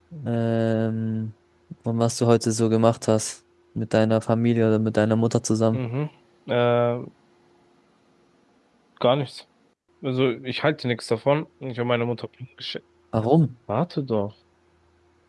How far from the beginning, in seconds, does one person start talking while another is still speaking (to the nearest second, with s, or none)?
none